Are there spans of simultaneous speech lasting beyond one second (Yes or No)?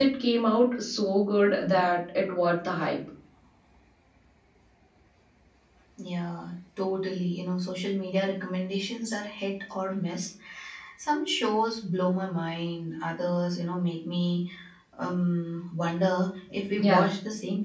No